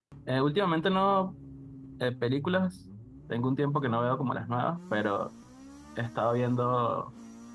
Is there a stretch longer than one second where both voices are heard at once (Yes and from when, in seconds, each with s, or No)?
No